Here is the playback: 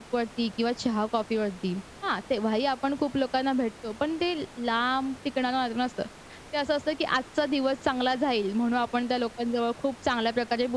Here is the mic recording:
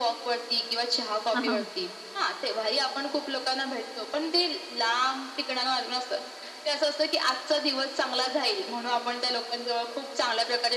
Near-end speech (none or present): present